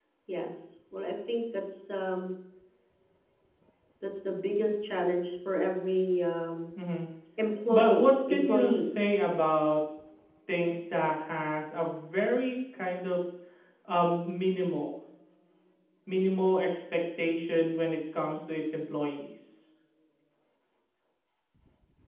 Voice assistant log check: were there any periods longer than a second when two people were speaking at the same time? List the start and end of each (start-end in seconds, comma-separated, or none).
7.7-8.9